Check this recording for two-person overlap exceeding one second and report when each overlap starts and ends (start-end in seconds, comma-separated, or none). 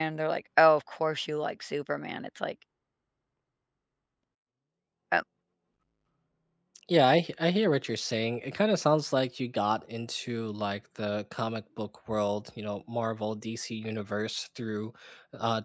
none